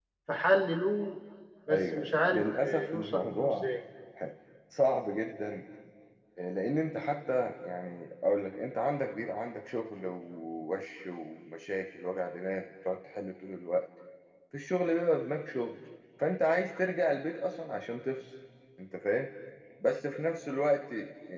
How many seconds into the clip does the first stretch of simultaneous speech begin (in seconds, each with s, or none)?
1.7 s